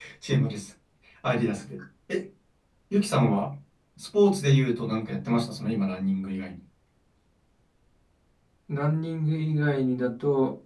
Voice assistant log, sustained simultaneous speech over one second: none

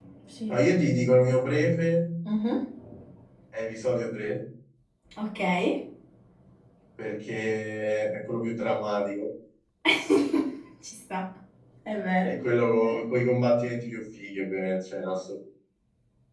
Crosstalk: none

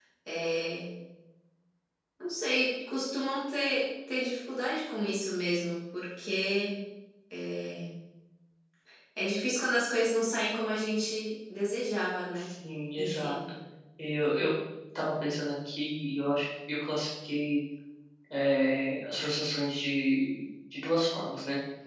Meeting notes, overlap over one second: none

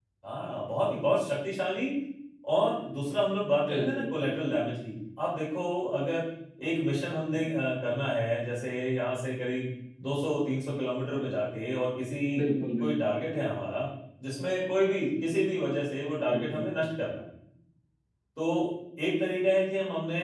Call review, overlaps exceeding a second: none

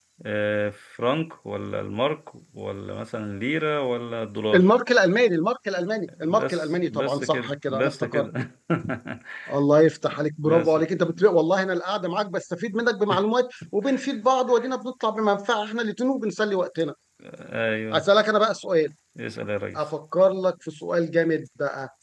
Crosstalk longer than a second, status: present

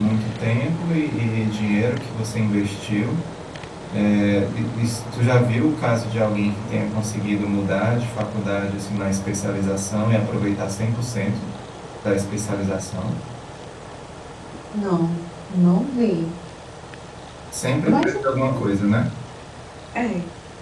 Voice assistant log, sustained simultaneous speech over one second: none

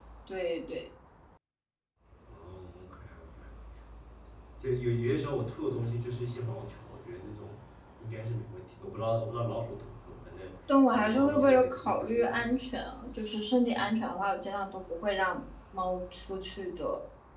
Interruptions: present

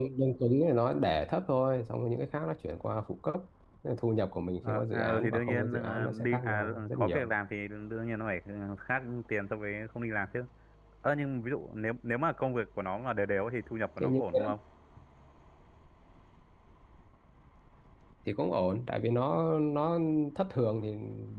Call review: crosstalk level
present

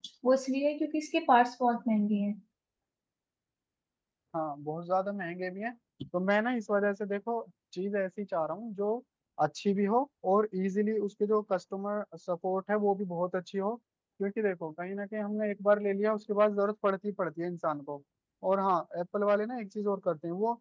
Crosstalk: none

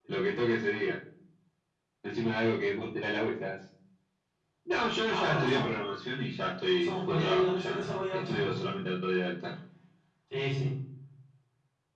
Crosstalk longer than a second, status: present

